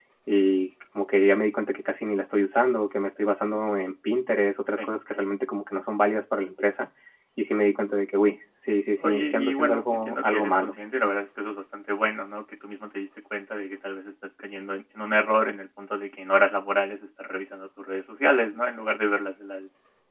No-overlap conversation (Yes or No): No